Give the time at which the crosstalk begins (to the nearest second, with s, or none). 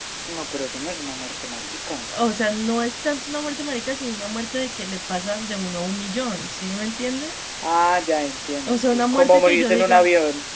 9 s